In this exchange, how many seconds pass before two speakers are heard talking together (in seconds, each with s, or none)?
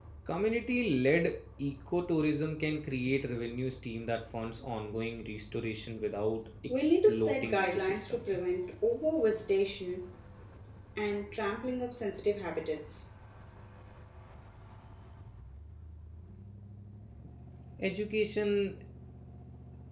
6.7 s